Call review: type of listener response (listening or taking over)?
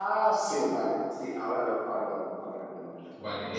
taking over